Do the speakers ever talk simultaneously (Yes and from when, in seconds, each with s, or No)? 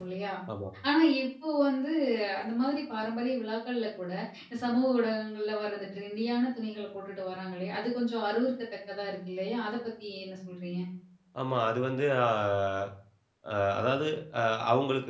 No